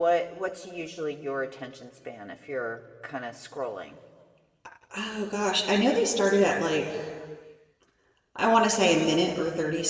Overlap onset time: none

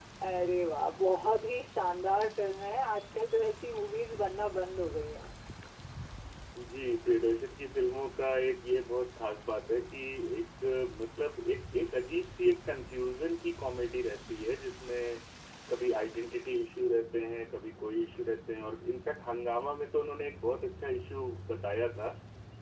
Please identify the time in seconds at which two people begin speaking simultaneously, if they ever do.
none

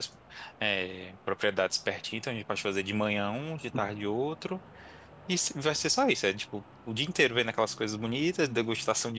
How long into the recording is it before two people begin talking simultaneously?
none

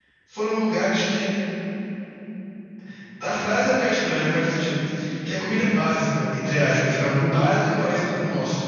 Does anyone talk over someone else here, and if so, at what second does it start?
none

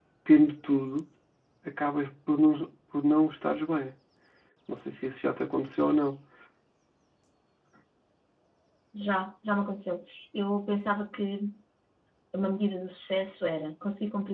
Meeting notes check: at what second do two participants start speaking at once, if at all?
none

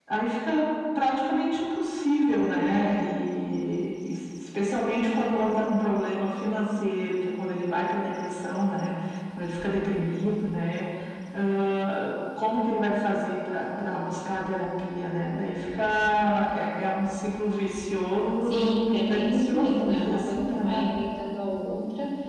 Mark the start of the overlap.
18.4 s

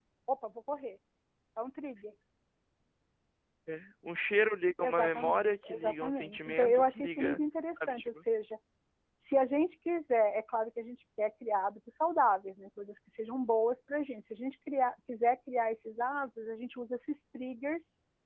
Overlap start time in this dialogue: 4.8 s

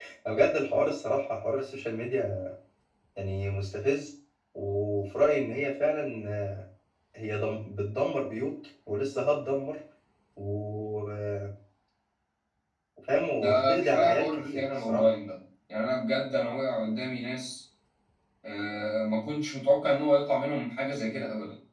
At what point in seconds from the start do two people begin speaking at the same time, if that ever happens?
13.3 s

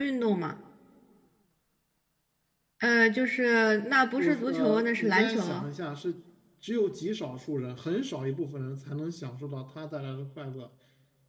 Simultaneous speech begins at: 4.2 s

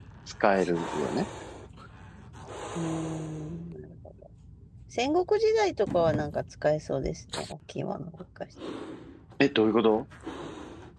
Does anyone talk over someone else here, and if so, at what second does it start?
none

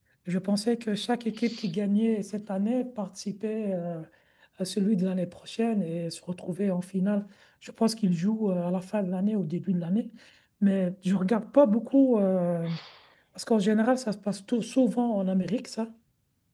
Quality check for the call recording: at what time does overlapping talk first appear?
none

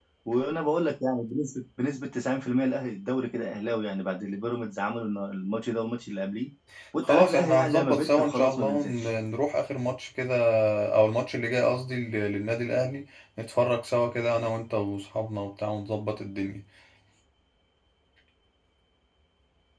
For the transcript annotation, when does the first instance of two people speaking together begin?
7.0 s

